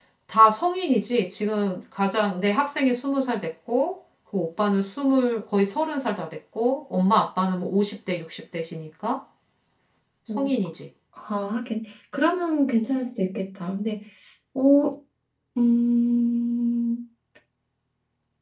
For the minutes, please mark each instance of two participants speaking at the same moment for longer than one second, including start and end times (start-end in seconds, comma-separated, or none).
none